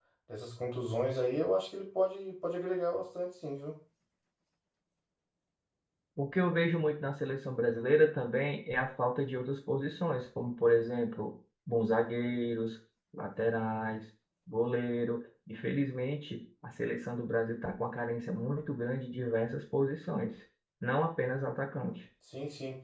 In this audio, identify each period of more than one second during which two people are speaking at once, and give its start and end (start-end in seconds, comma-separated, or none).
none